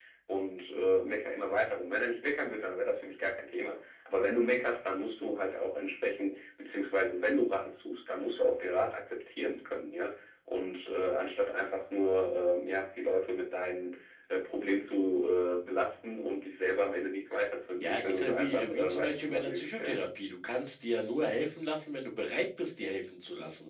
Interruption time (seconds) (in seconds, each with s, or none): 17.8 s